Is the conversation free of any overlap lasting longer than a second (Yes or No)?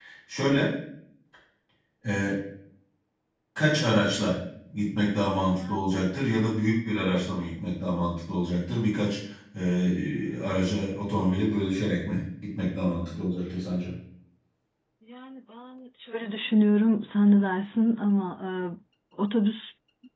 Yes